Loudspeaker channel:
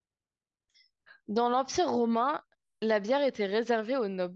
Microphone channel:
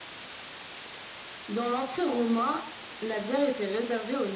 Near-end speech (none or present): none